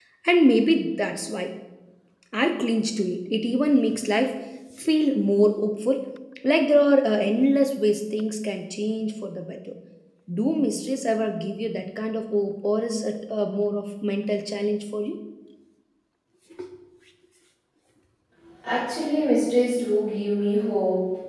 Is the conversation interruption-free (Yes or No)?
Yes